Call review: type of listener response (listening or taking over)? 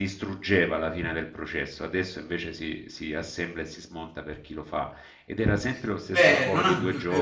taking over